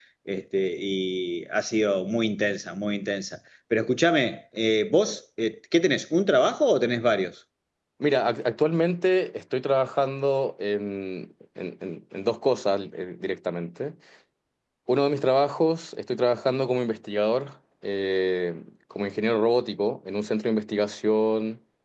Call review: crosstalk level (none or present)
none